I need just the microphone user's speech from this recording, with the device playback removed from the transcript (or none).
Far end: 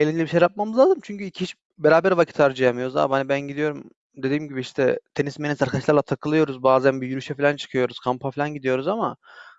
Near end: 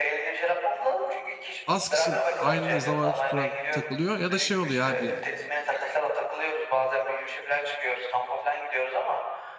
az kişi aynı zamanı tutturan takılıyor ya da şey oluyor abi yani.